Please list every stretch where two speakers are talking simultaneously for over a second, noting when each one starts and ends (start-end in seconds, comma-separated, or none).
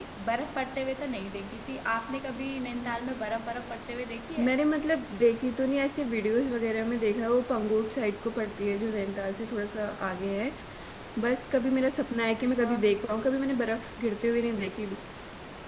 none